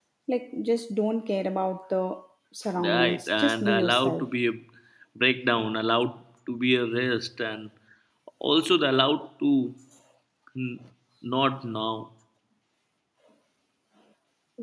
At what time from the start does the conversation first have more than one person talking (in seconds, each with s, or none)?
2.8 s